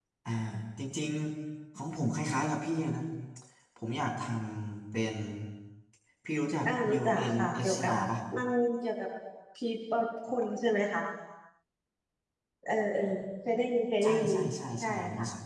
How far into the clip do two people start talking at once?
6.7 s

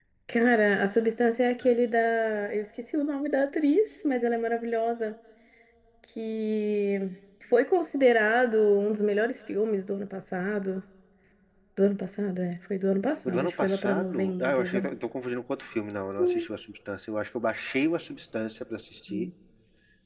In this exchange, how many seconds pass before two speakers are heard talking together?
13.2 s

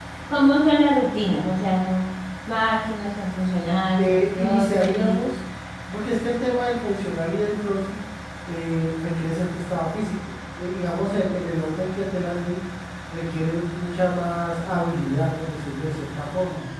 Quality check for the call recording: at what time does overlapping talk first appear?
4.0 s

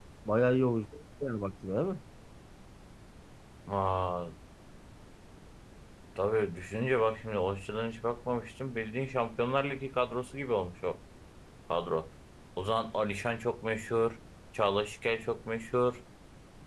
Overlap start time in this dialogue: none

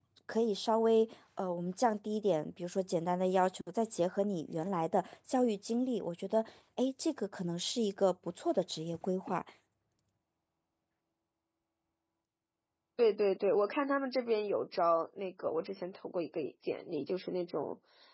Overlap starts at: none

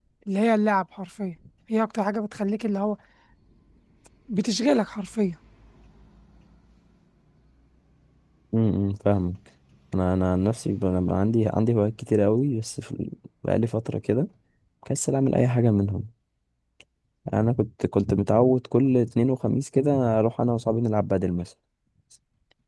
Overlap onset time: none

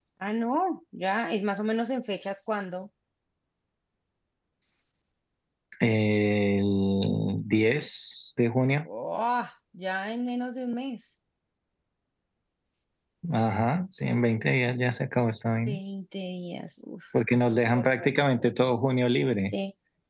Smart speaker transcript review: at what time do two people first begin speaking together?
none

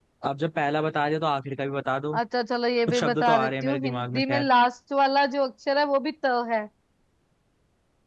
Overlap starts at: 2.9 s

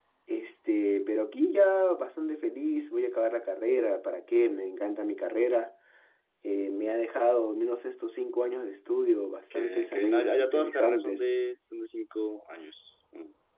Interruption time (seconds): 9.5 s

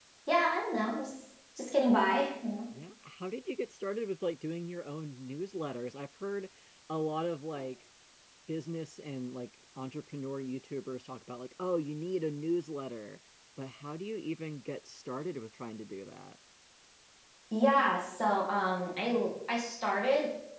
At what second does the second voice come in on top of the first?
none

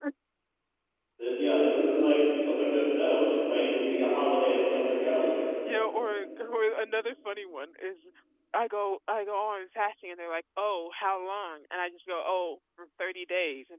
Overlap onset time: none

